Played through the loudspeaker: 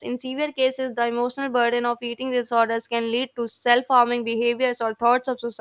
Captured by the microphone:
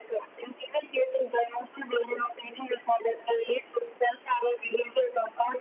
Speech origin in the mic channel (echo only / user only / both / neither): echo only